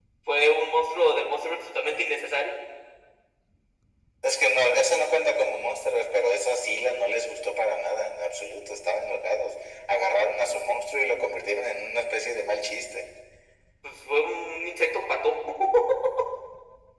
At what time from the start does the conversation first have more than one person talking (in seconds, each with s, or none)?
none